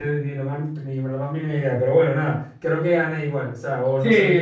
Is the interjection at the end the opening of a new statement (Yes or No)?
Yes